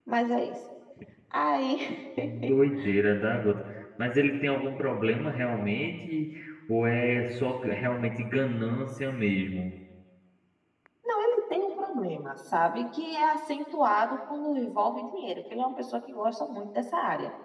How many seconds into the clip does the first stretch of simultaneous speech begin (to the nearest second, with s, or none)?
none